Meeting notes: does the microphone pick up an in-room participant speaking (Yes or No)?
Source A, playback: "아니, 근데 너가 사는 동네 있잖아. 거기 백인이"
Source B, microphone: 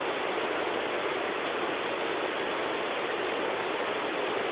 No